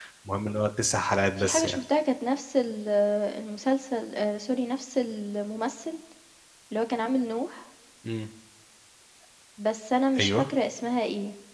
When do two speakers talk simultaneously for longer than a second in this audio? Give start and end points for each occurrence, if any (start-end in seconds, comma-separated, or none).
none